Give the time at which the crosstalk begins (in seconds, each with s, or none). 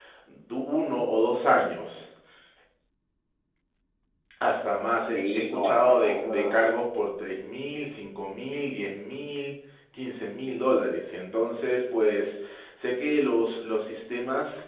5.1 s